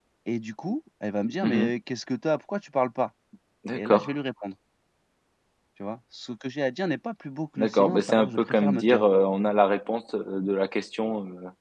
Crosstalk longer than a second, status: present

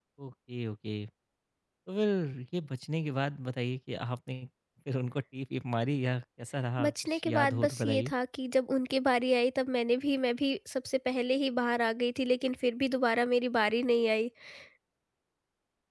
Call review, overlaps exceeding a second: present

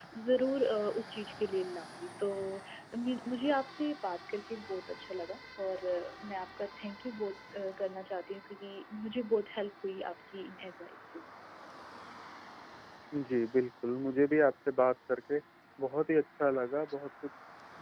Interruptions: none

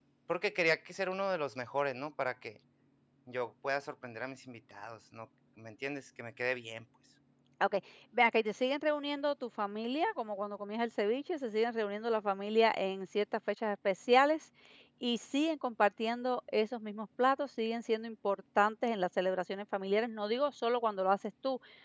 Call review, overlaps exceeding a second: none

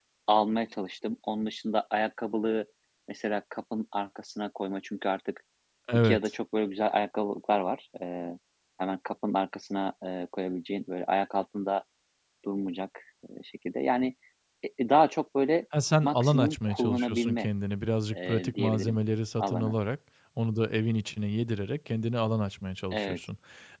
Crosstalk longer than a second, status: present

